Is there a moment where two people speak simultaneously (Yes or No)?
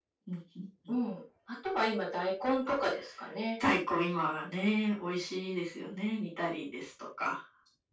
No